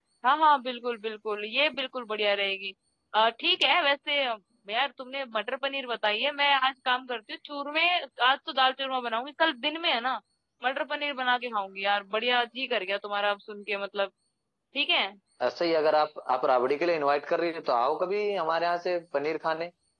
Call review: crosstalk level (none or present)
none